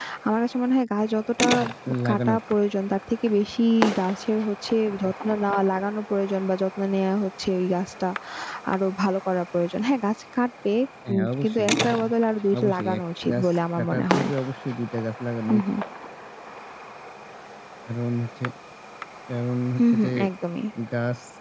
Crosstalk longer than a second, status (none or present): present